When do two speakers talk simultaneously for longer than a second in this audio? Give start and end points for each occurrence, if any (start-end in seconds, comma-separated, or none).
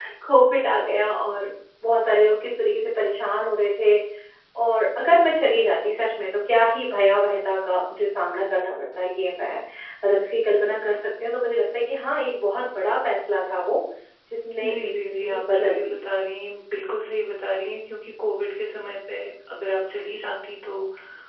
14.6-16.0